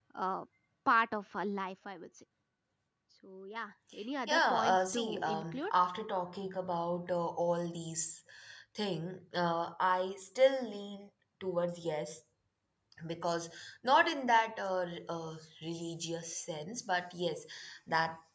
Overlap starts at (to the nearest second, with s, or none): 4 s